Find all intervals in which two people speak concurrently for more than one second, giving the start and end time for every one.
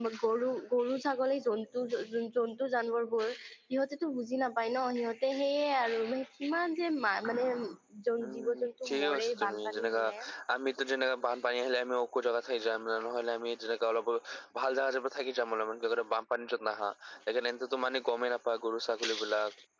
8.2-10.0

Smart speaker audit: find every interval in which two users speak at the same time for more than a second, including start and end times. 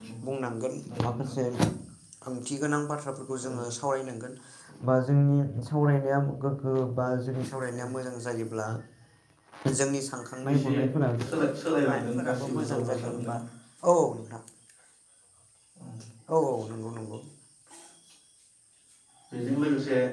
11.9-13.3

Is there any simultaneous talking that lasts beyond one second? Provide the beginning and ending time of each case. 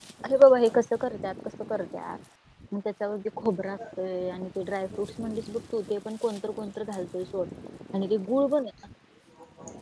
none

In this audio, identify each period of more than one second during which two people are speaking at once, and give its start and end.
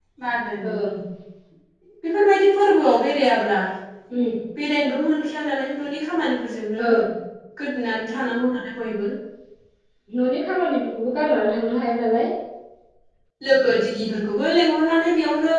none

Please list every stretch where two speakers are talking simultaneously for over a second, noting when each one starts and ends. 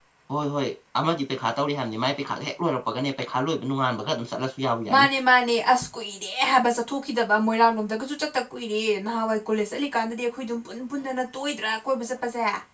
none

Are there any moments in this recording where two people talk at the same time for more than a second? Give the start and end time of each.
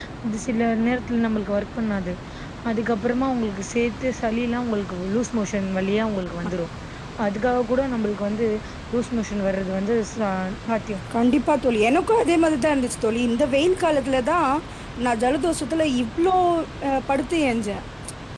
none

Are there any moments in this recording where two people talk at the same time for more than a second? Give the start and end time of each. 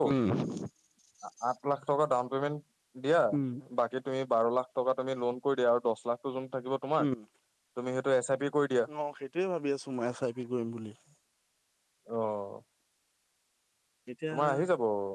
none

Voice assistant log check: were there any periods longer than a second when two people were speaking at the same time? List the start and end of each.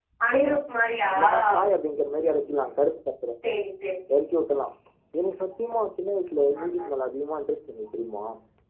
none

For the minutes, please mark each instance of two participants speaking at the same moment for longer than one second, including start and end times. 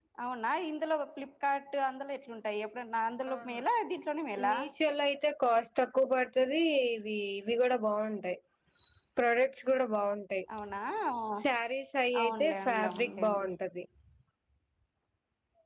12.2-13.5

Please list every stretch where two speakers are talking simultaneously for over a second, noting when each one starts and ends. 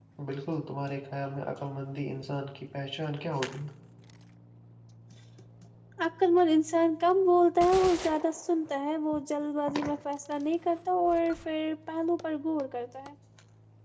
none

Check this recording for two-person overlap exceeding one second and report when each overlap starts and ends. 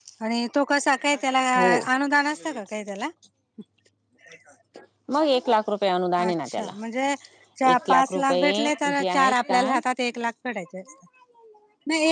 7.7-9.6

